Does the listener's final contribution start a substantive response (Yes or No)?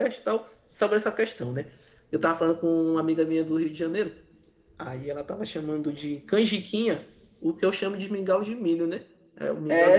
Yes